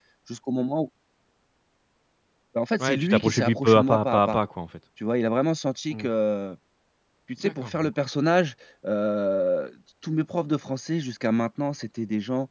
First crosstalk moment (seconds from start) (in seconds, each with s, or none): 2.8 s